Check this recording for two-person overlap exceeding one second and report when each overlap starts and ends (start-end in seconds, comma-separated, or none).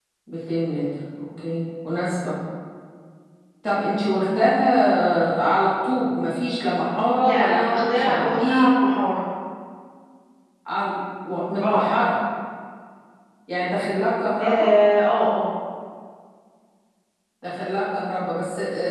7.2-8.9